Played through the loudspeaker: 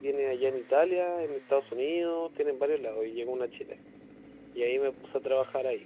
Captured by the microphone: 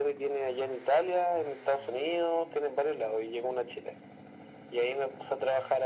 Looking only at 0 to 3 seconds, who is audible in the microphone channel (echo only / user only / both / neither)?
echo only